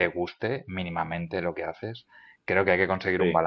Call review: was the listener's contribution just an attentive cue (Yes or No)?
Yes